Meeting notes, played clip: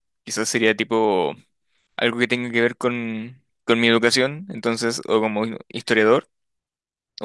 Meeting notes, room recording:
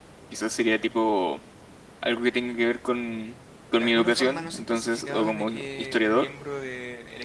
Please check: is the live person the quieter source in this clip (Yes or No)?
Yes